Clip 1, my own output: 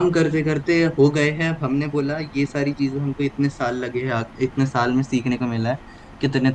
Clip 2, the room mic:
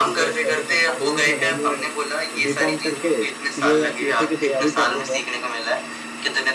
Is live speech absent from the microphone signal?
No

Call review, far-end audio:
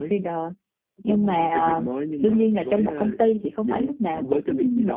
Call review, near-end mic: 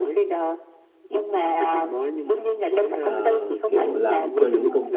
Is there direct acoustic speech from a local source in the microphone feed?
Yes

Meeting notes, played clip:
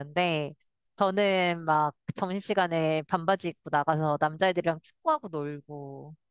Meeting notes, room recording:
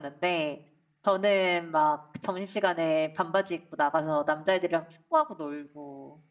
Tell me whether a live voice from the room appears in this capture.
No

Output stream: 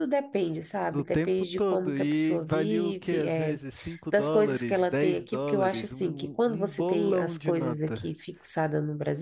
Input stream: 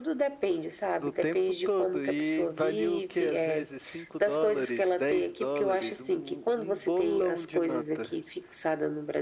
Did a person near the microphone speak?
No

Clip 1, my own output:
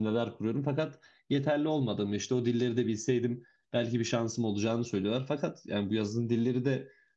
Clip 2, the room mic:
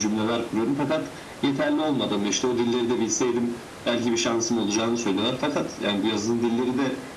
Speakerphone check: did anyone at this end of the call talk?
No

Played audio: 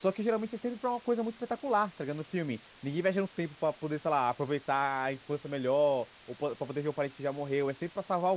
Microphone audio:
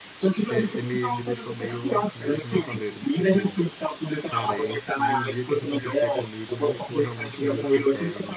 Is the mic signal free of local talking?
No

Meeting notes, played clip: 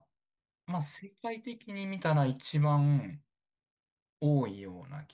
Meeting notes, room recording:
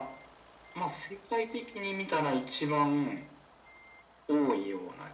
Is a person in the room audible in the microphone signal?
No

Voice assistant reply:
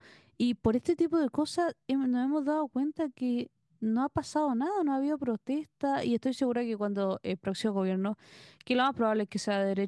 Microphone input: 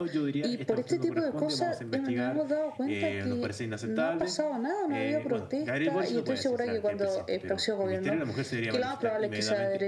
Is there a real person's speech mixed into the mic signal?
Yes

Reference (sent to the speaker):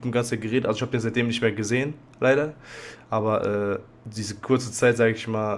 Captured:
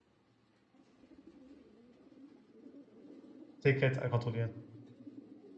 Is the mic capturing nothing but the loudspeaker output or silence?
No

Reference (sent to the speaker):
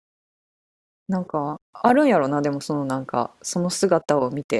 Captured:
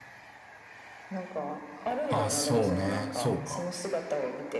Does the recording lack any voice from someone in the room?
No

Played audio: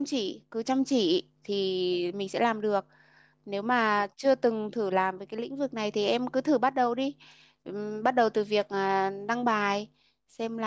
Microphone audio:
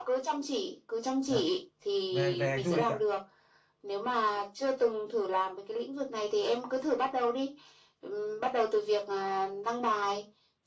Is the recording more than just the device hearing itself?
Yes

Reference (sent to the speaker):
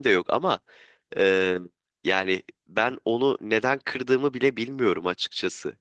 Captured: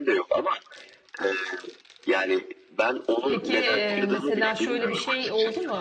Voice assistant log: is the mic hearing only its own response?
No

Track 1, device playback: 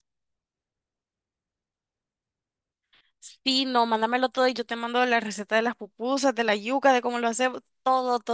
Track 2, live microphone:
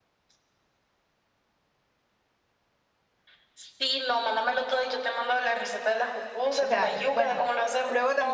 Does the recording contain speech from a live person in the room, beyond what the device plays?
Yes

